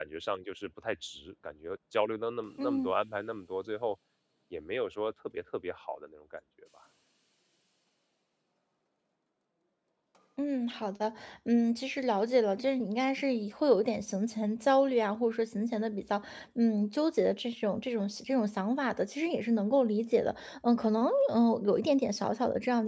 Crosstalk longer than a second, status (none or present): none